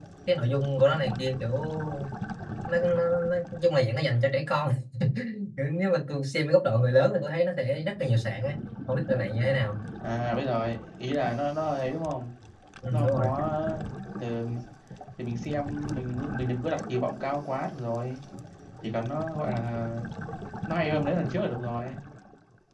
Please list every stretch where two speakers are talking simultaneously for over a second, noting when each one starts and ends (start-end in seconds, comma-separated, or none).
none